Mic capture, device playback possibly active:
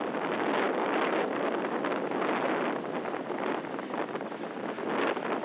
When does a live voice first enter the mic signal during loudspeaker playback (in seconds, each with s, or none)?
none